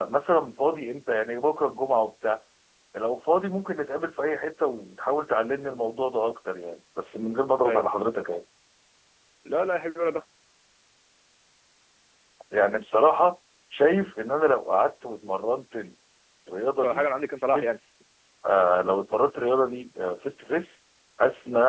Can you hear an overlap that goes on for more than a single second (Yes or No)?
No